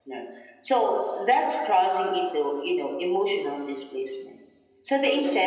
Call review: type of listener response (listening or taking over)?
listening